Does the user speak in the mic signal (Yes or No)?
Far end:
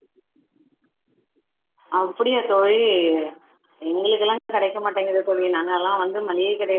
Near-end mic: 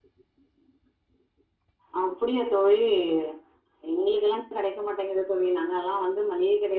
No